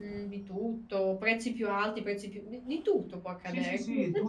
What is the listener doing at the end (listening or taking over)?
taking over